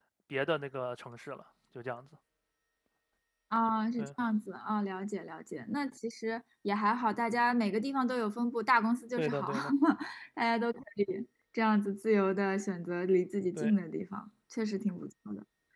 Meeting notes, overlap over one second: none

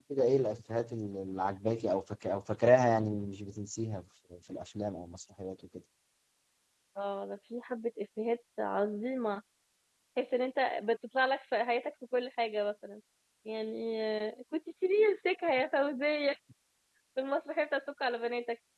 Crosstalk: none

